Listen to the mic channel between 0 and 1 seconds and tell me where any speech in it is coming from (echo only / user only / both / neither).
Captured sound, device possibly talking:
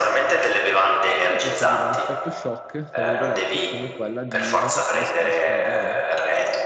echo only